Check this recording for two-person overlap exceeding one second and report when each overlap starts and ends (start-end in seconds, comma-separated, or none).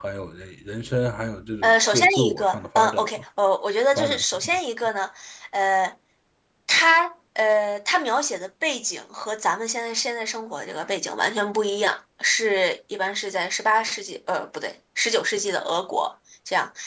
1.6-3.1